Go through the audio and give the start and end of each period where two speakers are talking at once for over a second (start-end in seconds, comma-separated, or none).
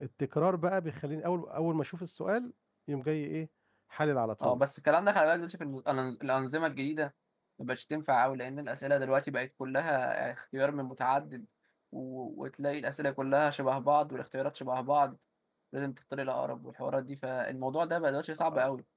none